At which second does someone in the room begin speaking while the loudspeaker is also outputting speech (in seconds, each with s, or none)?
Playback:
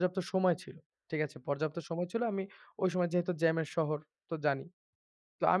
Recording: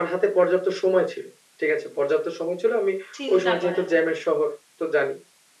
3.1 s